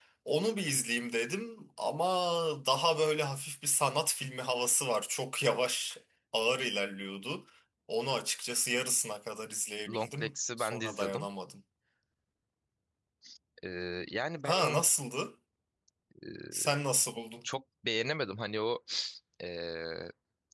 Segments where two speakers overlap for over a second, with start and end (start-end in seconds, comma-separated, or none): 9.9-11.3